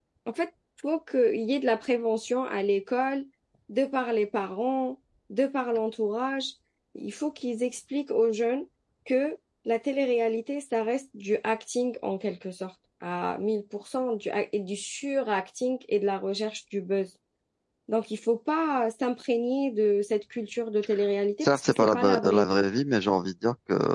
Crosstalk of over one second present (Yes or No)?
Yes